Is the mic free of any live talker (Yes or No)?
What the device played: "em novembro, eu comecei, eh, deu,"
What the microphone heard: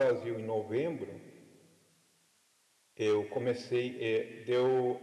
Yes